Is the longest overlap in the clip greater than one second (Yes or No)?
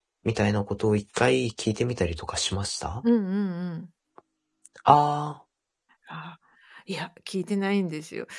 No